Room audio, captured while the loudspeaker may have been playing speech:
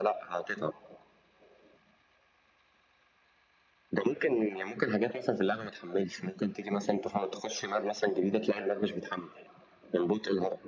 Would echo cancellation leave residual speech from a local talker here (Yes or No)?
No